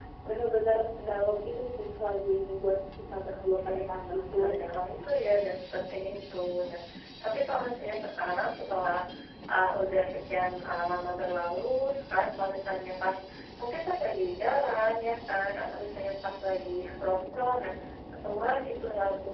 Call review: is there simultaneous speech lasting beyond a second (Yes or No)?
Yes